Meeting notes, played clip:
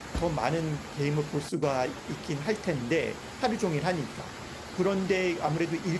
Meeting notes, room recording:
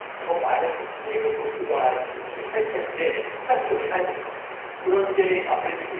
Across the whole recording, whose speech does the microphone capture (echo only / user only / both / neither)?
echo only